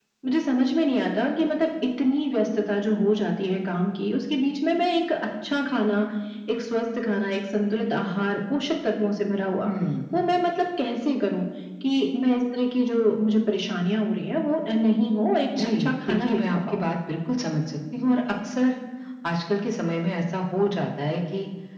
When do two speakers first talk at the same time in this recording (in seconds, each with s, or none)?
15.5 s